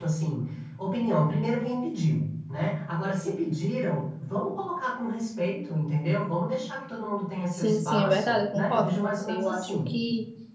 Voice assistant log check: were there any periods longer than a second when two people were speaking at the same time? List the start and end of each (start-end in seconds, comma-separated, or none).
7.5-9.9